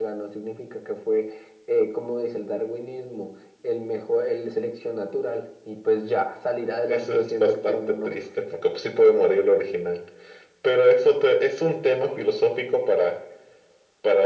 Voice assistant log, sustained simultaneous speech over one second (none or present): present